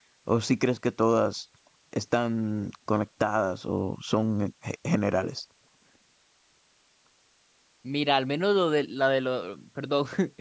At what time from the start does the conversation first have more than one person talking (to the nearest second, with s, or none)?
none